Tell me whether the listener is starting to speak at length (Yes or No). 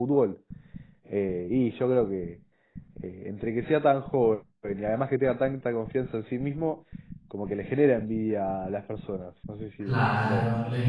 Yes